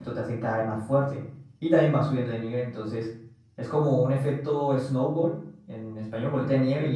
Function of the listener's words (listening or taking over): listening